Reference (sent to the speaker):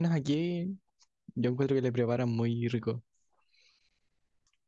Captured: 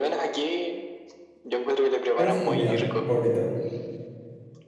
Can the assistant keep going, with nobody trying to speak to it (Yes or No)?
No